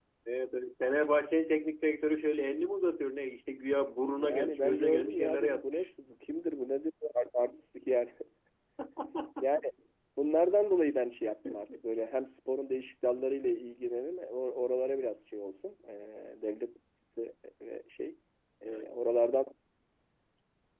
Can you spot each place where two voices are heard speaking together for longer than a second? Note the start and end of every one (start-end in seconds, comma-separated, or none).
4.1-5.9